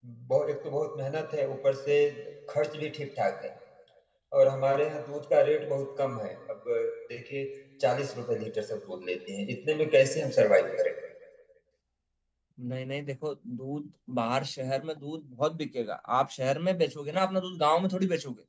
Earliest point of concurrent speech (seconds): none

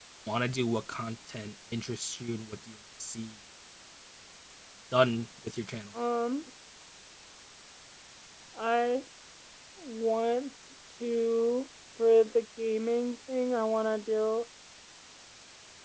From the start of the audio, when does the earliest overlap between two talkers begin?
none

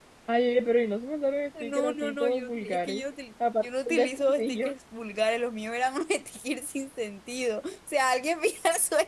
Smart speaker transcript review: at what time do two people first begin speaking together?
2 s

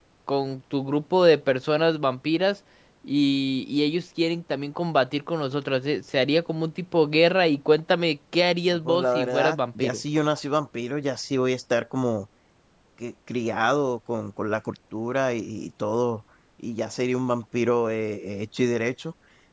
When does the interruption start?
9 s

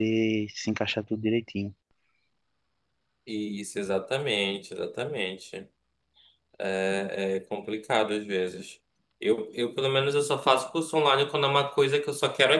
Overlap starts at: none

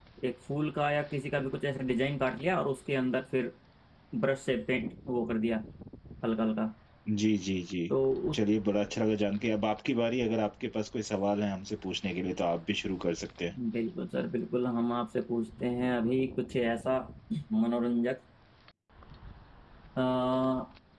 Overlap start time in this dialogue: none

